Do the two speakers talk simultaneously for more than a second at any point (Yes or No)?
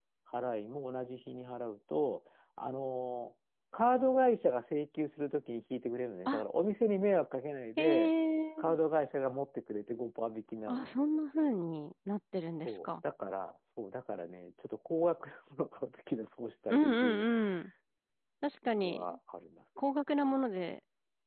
No